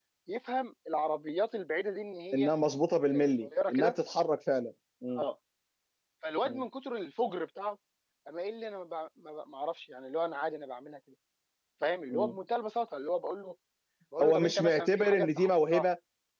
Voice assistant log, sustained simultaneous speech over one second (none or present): present